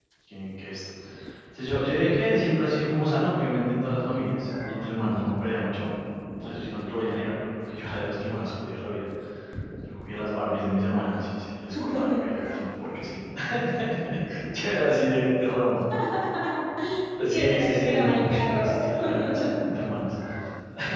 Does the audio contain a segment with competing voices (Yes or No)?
Yes